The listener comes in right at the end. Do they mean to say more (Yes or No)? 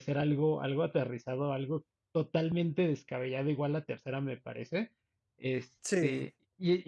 No